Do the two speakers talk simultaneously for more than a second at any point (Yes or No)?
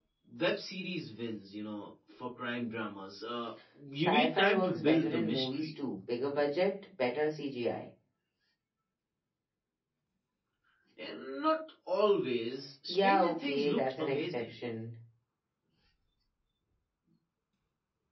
Yes